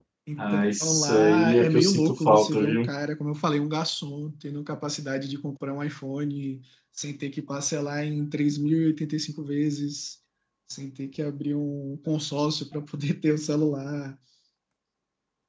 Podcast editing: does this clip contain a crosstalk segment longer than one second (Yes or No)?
Yes